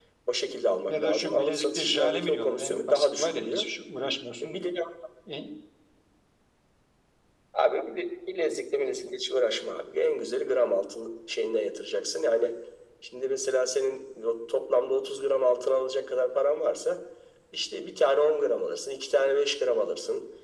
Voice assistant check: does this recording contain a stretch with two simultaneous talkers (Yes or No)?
Yes